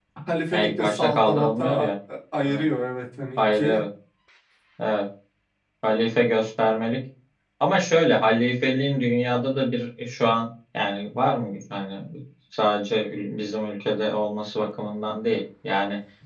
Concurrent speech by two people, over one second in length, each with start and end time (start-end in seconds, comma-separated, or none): 0.5-1.9